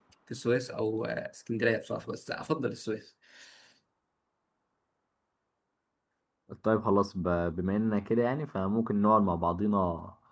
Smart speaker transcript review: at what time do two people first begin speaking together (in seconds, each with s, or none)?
none